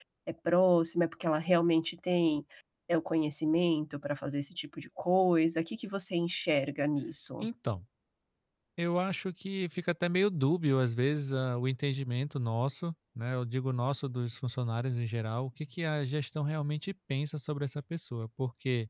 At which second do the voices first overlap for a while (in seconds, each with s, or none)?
none